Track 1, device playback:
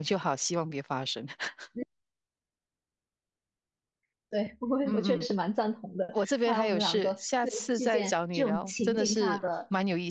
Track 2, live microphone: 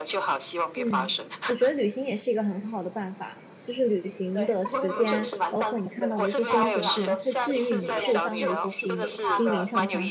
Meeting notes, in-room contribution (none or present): present